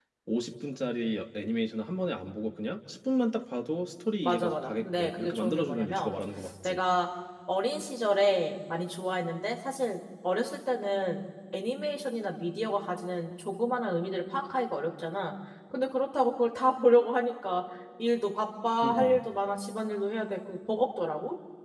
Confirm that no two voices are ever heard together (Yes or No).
No